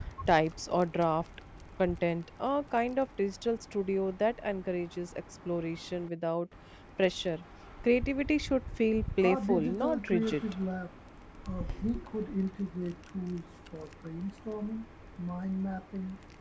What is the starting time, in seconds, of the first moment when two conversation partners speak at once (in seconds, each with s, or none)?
9.2 s